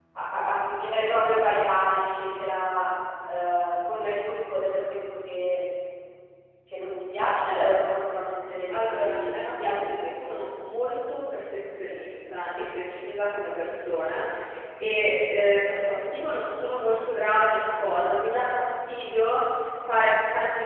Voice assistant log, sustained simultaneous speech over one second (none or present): present